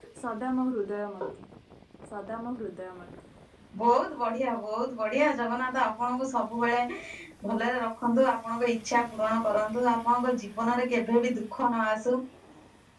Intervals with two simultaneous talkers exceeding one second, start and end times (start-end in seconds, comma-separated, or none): none